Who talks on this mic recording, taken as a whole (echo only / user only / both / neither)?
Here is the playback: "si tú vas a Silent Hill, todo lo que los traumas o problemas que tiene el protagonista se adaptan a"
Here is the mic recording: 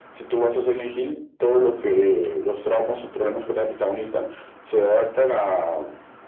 echo only